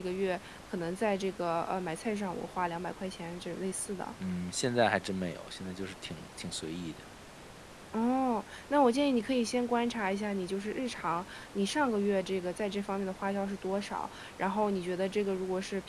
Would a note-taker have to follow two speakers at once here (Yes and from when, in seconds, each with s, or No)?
No